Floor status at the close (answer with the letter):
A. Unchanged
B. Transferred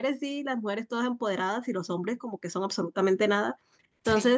A